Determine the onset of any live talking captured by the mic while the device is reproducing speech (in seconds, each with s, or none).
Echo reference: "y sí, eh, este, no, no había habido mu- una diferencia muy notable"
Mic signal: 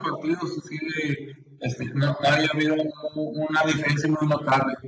none